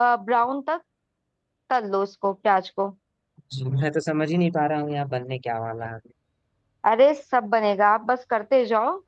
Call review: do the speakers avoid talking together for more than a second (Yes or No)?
Yes